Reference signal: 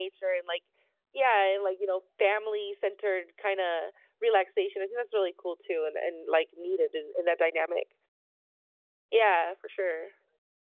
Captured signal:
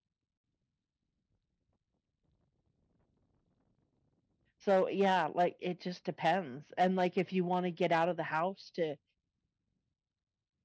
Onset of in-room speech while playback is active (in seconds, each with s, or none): 4.6 s